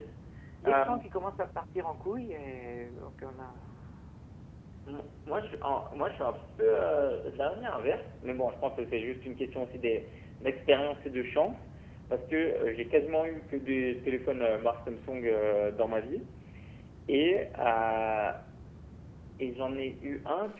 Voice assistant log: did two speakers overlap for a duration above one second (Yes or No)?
No